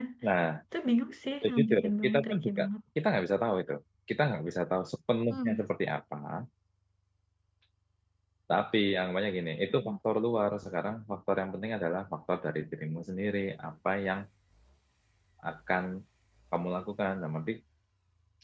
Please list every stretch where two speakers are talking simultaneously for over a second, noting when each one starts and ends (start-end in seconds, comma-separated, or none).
1.4-2.7